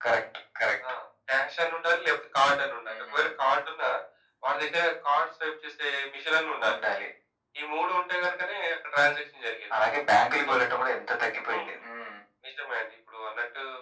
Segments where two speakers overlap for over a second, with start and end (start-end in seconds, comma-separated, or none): none